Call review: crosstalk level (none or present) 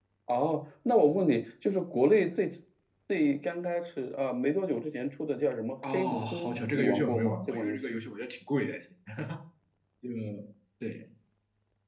present